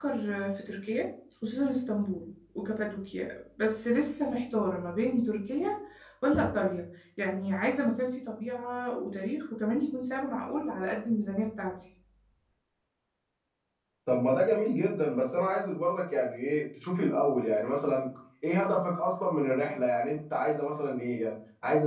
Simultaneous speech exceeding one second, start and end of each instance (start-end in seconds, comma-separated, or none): none